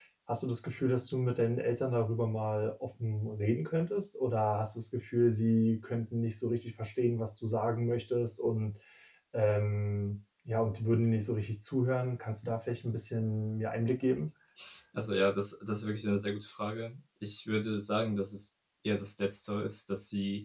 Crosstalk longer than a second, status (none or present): none